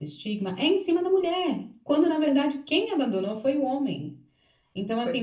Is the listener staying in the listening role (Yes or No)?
Yes